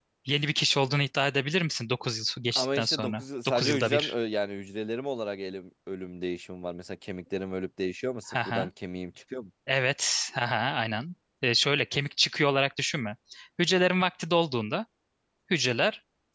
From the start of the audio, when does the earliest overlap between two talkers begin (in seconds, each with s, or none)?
2.5 s